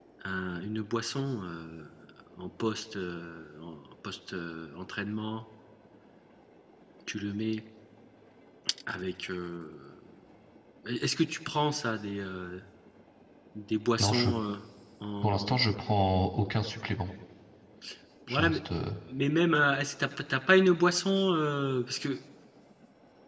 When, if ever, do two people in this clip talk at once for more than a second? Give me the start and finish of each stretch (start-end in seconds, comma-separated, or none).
none